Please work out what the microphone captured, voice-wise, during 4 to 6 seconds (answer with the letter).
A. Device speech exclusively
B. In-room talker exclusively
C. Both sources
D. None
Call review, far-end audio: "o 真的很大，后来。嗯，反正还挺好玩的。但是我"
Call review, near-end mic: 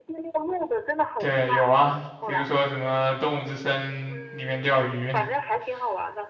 C